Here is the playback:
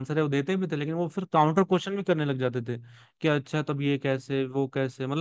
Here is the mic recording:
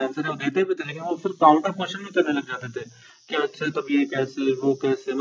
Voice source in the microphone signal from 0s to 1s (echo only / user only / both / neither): echo only